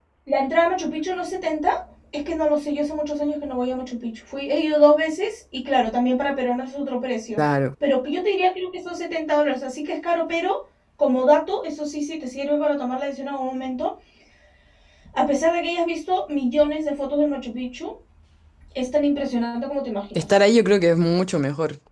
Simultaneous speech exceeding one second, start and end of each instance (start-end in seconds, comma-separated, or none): none